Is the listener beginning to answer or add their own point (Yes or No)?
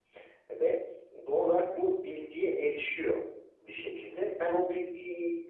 No